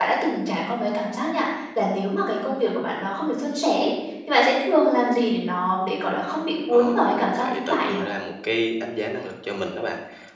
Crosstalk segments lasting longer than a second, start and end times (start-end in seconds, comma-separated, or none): 6.7-8.0